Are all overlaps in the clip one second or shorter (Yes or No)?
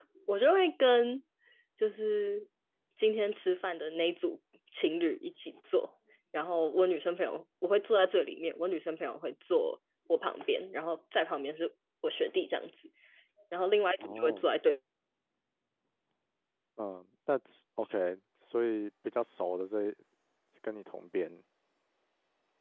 Yes